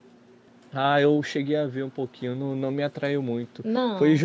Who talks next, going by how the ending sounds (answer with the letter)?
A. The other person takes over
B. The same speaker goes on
B